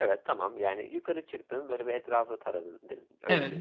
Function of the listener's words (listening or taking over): taking over